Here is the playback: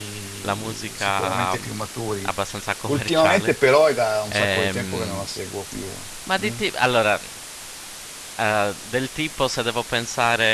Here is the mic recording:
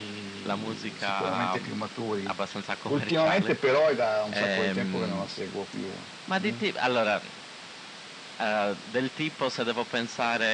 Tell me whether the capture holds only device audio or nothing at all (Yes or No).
Yes